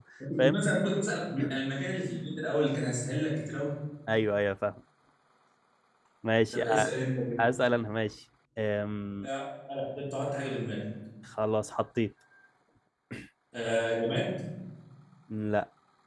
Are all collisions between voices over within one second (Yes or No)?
Yes